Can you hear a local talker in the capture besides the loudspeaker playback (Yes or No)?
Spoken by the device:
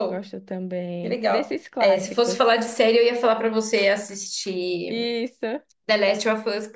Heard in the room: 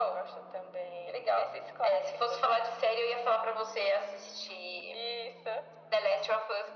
No